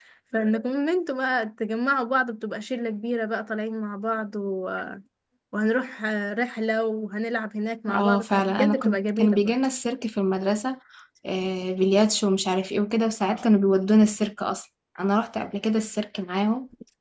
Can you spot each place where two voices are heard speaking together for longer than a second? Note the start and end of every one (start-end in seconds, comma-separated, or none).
7.9-9.6